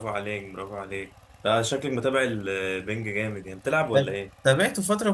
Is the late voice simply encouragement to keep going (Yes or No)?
No